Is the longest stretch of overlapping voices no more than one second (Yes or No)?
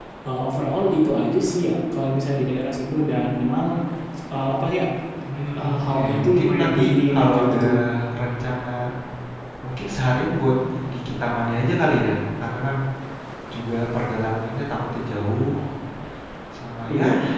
No